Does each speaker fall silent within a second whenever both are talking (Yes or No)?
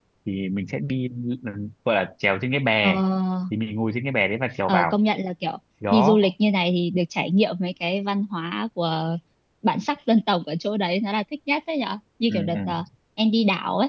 Yes